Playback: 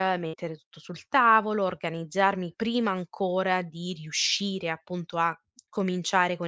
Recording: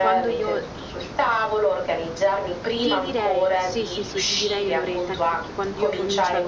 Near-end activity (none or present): present